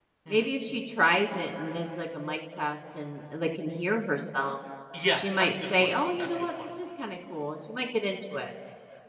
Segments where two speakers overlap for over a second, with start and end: 5.1-6.7

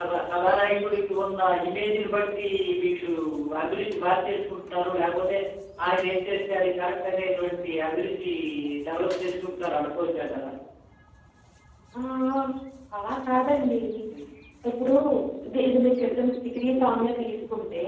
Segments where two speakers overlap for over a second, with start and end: none

